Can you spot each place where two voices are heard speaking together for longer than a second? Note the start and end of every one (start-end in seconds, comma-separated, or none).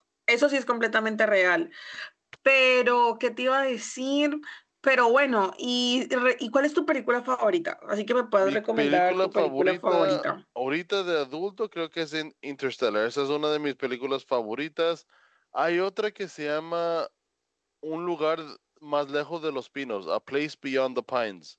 8.4-10.2